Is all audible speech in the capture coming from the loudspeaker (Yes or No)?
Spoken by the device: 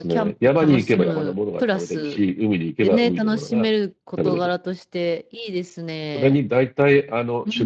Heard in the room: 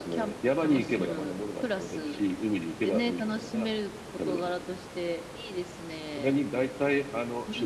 Yes